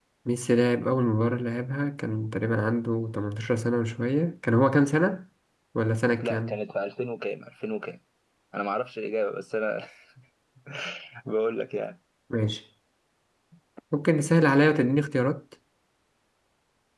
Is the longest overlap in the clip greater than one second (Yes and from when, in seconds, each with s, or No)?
No